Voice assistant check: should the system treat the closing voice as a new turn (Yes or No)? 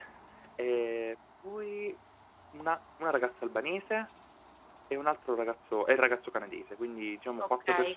No